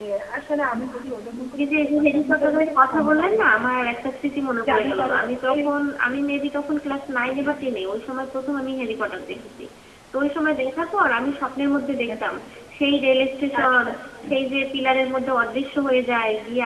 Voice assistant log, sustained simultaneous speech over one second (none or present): present